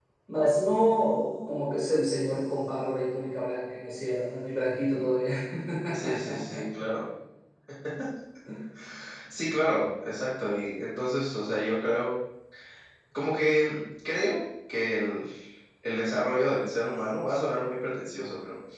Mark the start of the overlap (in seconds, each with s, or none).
none